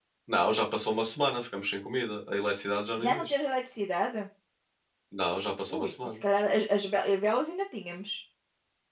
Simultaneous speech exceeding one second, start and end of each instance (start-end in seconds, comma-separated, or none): none